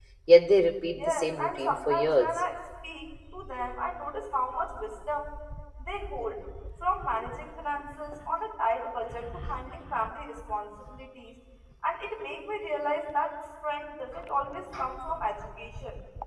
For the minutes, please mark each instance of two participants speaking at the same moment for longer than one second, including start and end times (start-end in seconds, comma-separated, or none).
1.0-2.4